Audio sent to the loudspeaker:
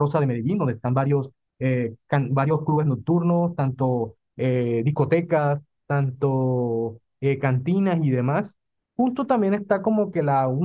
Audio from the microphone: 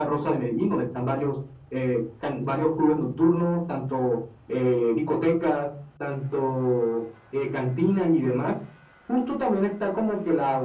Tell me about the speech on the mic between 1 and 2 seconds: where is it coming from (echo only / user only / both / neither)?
echo only